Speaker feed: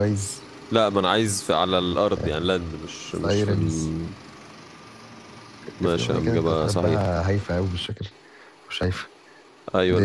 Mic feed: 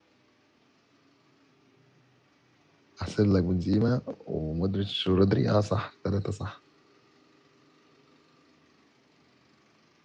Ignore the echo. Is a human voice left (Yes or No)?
Yes